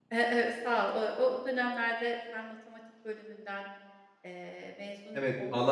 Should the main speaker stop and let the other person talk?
Yes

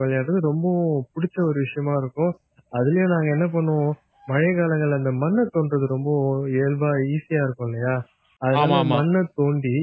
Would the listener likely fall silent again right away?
Yes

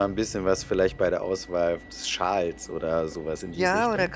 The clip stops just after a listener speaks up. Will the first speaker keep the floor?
No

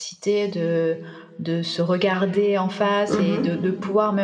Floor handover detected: No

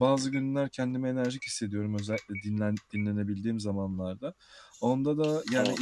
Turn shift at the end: No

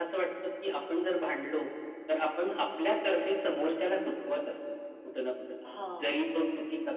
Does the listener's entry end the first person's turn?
No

